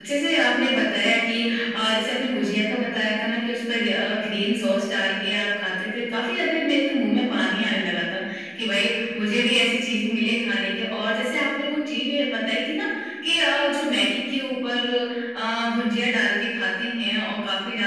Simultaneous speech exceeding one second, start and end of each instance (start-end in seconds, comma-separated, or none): none